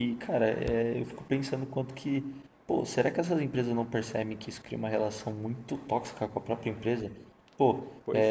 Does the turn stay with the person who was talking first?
Yes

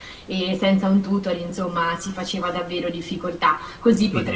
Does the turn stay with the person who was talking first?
No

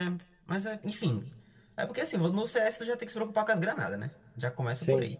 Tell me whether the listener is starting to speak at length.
No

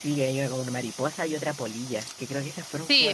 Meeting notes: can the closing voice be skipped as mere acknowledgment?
No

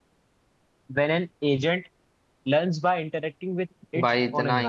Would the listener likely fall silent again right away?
No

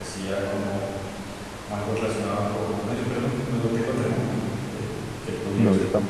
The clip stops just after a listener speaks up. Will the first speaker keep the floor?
No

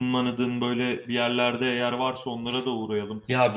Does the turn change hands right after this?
Yes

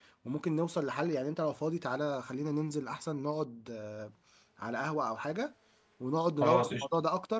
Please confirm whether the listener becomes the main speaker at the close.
No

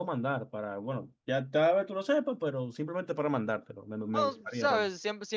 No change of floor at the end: No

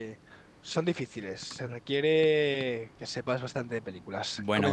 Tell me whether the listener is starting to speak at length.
Yes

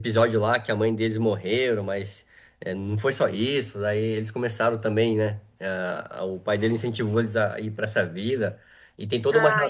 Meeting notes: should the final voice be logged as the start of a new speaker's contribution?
No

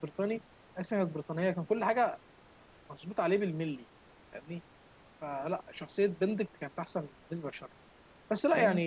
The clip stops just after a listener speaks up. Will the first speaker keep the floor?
Yes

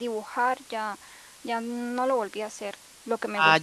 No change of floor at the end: Yes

